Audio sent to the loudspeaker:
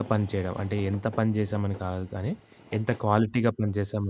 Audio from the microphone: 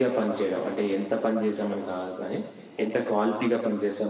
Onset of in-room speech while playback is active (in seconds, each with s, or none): none